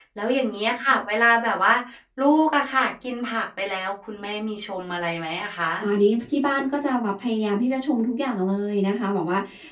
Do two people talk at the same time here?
No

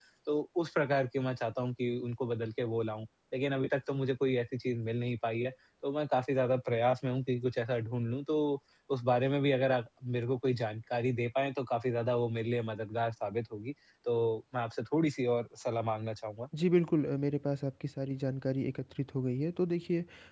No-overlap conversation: Yes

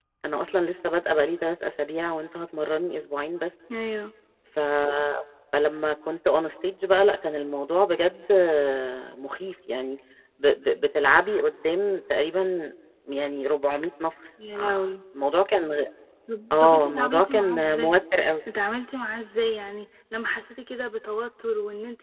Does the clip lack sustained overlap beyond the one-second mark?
No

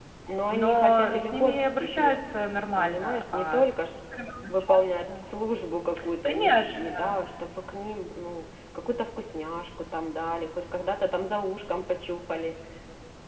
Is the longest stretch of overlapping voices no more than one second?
No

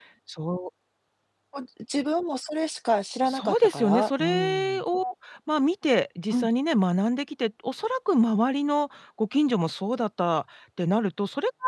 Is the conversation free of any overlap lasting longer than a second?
No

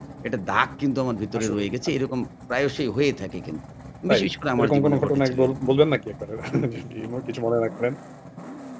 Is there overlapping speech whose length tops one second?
Yes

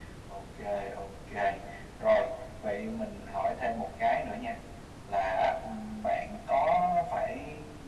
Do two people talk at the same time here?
No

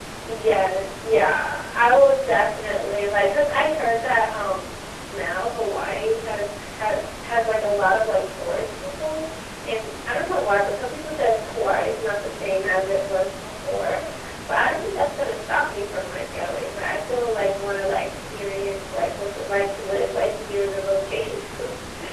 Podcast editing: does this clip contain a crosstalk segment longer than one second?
No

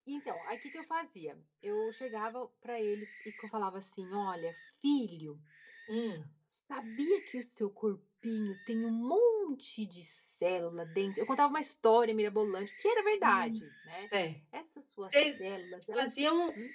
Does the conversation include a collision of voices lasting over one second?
No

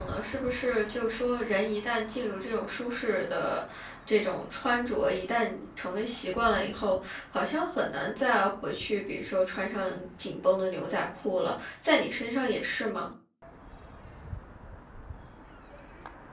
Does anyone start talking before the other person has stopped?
No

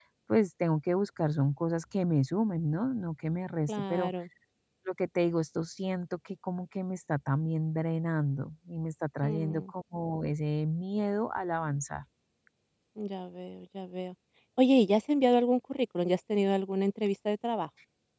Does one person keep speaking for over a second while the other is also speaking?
No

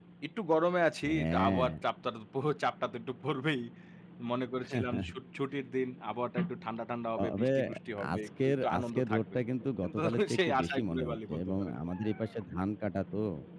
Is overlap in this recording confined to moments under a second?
No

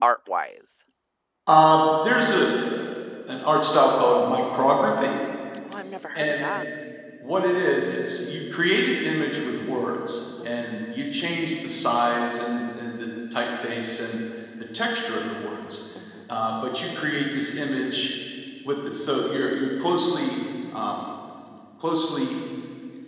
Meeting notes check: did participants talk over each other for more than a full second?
No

